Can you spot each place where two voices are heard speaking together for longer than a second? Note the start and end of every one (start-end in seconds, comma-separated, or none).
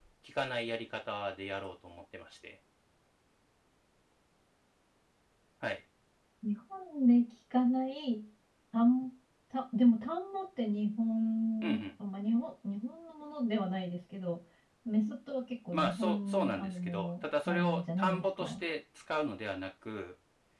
15.7-18.6